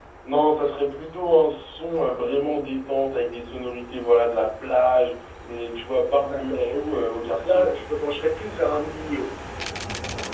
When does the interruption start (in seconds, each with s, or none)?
6.2 s